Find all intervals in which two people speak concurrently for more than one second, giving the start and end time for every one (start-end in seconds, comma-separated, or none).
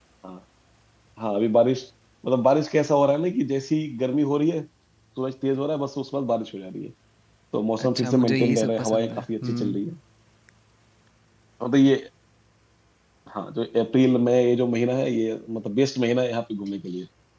7.8-9.8